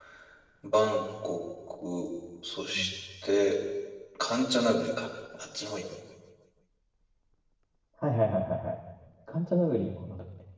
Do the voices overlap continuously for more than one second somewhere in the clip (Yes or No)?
No